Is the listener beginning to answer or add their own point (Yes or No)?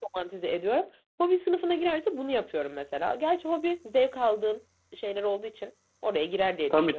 Yes